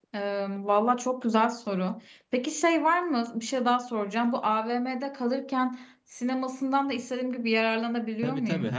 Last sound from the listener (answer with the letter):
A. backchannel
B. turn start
B